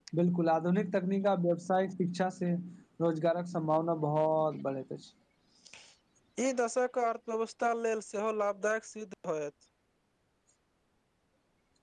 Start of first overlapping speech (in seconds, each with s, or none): none